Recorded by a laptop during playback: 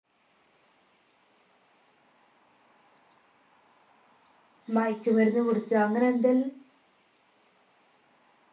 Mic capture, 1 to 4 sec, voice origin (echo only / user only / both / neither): neither